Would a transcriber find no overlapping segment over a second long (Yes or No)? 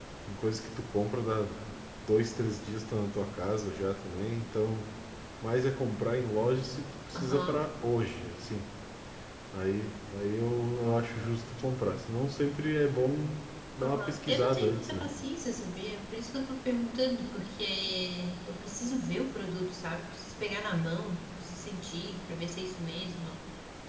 No